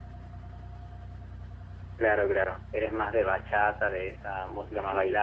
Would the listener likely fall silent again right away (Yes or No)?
No